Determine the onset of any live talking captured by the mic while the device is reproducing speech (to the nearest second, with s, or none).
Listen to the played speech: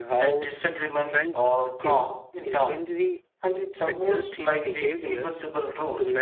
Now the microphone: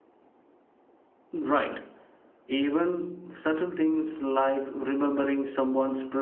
1 s